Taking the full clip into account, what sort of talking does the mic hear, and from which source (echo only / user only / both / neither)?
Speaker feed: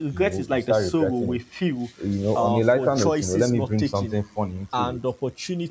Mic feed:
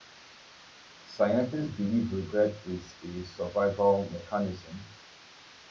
user only